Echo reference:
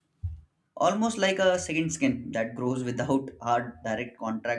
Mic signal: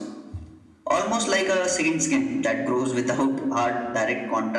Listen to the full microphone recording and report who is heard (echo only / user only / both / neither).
echo only